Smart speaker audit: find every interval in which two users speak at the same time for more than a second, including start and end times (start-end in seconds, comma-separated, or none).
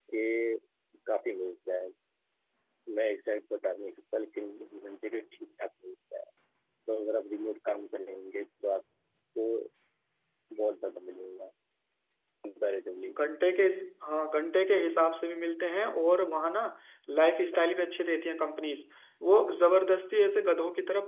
none